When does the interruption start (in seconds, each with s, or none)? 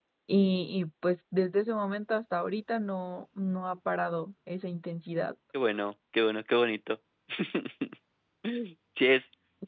none